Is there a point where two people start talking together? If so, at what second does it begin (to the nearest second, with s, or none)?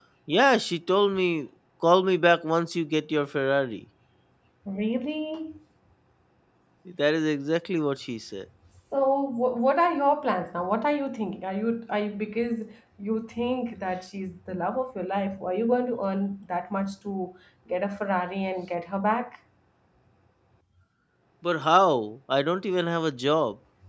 none